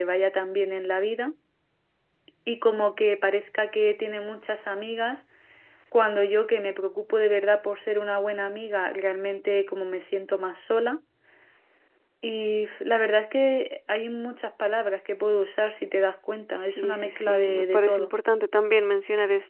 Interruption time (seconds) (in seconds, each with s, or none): 16.7 s